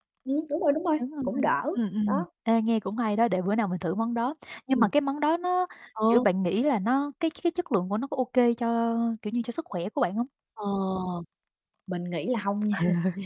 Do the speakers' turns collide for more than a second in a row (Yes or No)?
No